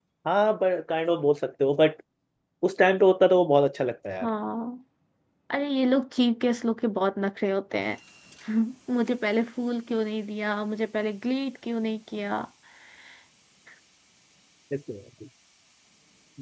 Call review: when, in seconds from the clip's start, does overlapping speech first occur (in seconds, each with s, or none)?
none